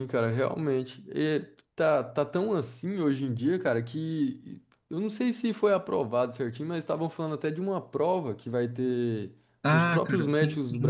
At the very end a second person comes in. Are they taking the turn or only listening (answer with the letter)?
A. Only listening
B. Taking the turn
B